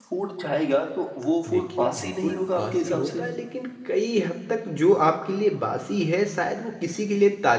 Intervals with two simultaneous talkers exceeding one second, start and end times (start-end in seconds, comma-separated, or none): 1.5-3.2